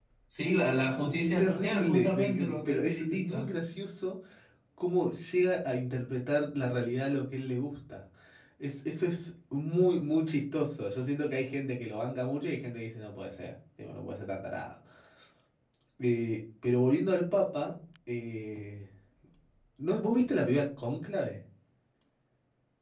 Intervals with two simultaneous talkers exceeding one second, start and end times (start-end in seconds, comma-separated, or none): 1.2-3.5